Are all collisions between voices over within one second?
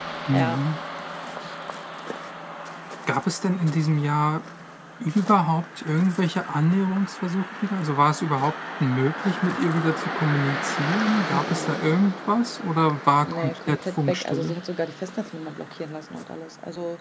No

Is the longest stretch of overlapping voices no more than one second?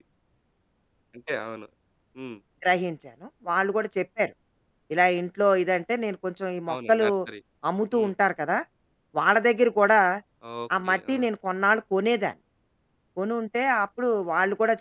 Yes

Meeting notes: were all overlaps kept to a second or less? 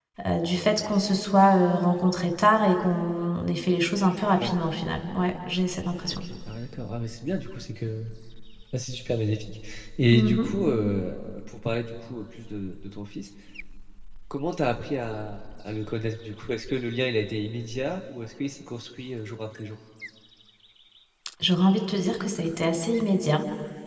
Yes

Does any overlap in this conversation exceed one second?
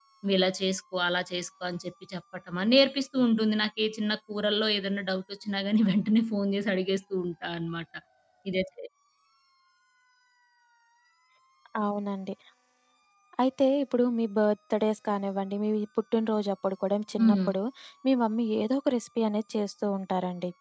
No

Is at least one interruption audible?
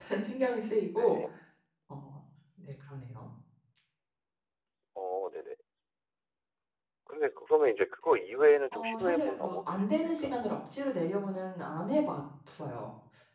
Yes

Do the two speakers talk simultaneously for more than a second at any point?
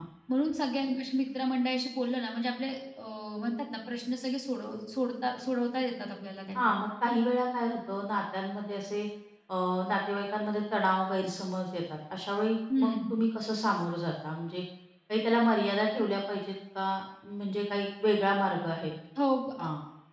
No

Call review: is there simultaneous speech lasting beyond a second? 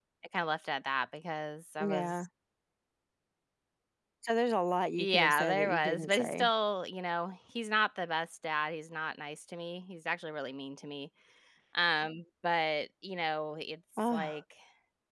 Yes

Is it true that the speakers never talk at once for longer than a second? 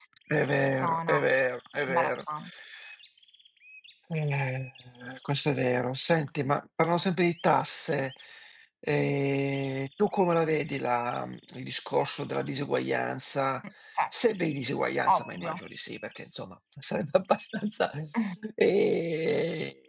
Yes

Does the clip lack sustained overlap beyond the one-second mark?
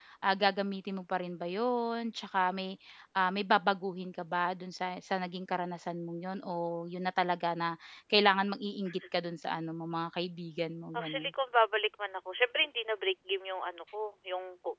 Yes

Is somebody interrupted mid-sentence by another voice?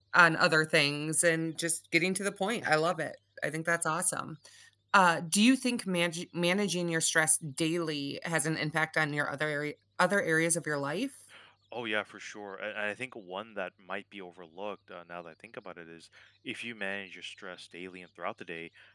No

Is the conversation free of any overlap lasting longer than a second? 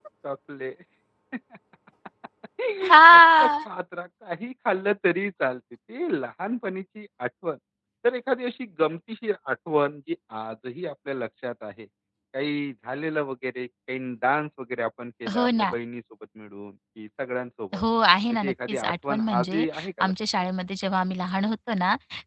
No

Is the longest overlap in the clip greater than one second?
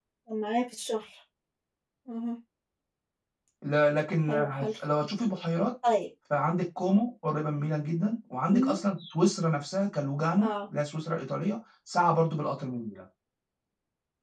No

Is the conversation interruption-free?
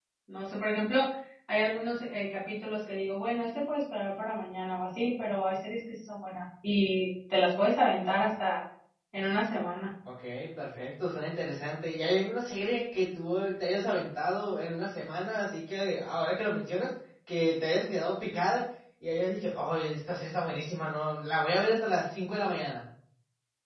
Yes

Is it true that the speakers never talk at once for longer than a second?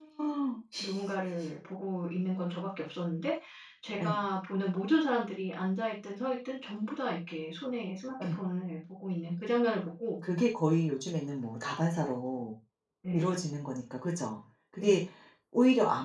Yes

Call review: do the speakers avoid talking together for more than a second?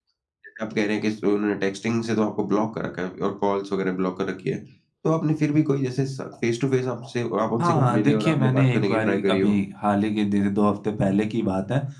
No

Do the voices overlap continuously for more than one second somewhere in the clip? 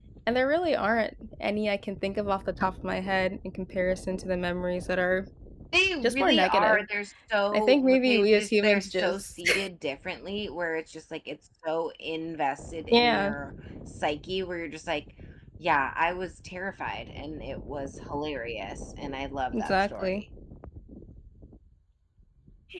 Yes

